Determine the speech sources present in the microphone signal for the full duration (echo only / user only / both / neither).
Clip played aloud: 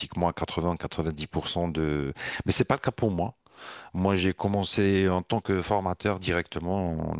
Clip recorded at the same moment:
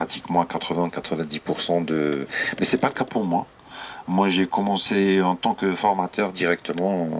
echo only